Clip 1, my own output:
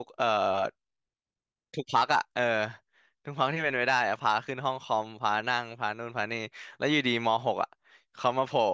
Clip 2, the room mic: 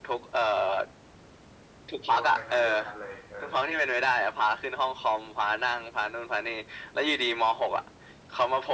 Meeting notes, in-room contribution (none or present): present